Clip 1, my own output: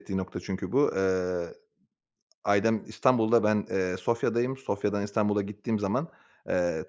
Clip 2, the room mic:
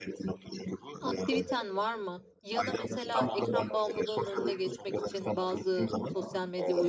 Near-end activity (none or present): present